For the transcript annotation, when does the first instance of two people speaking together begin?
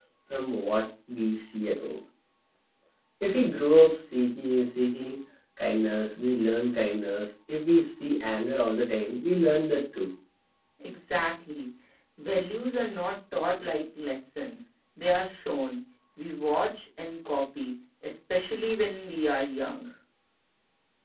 none

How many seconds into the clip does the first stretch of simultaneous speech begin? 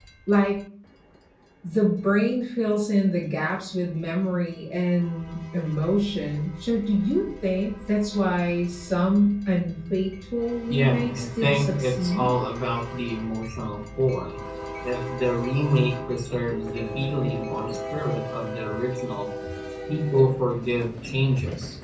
11 s

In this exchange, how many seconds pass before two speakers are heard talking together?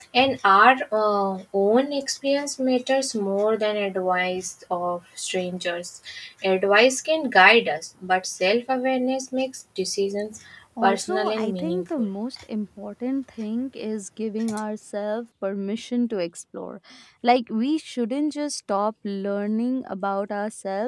11 s

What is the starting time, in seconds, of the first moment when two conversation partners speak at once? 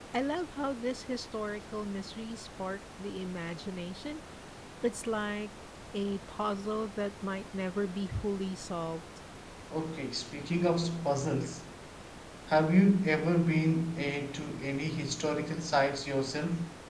none

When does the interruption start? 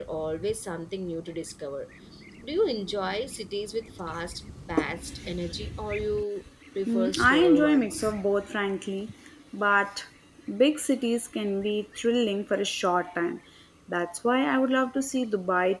7 s

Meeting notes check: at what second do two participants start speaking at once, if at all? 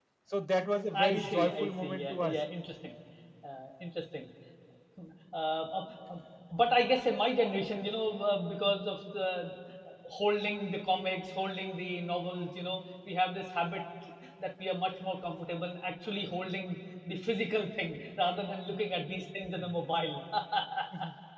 1 s

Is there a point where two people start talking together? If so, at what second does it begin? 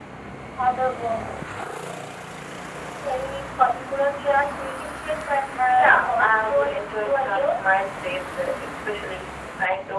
6 s

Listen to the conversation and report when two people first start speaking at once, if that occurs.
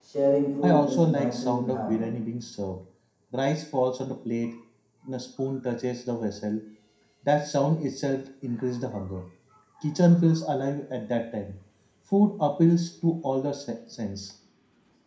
1 s

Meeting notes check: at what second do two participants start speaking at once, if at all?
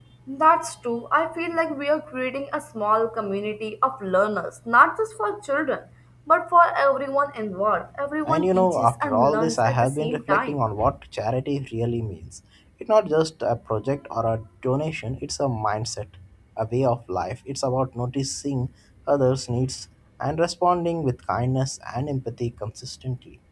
8 s

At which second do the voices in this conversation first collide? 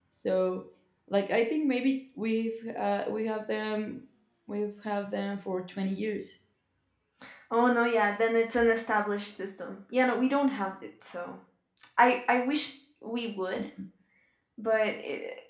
none

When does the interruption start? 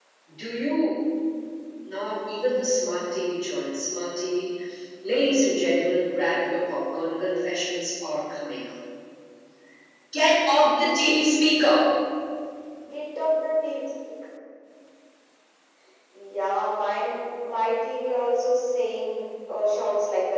none

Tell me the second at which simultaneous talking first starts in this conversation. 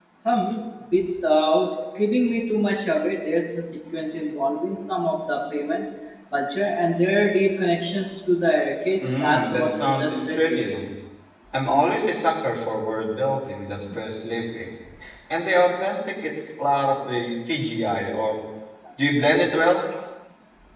9 s

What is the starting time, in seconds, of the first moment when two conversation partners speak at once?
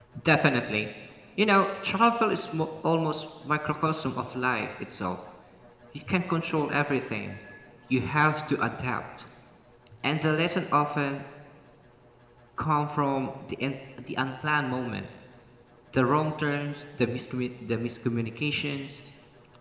none

